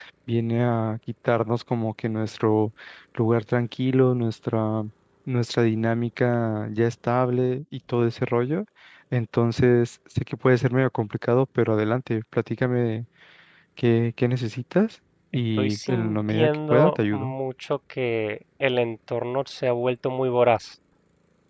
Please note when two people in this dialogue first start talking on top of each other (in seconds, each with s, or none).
15.6 s